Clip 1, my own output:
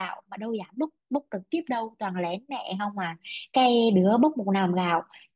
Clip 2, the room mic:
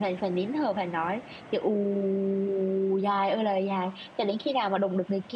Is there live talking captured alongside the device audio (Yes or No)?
Yes